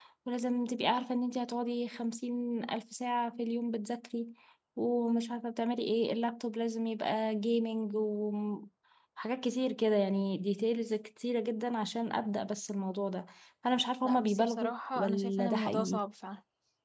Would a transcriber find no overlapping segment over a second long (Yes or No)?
No